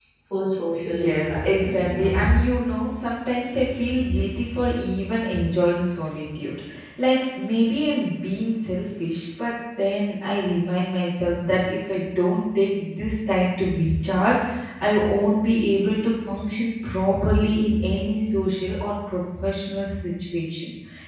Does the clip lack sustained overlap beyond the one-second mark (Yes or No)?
No